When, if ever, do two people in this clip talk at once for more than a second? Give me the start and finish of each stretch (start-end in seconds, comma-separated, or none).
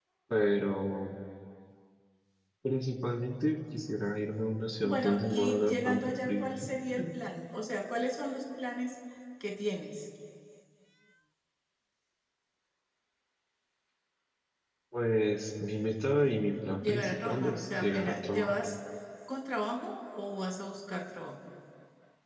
4.8-6.5, 16.8-18.6